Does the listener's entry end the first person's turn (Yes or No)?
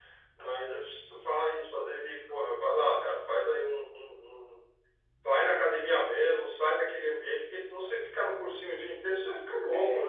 Yes